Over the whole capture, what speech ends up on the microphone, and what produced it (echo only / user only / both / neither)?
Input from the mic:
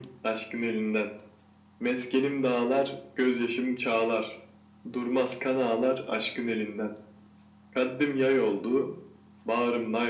echo only